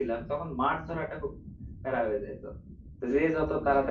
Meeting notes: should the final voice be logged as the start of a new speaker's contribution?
No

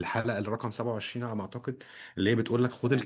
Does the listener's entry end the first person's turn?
No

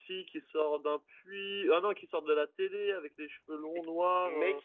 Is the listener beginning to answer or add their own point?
Yes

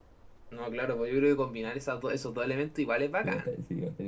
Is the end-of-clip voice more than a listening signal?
Yes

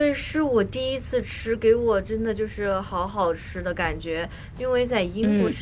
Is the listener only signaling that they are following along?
Yes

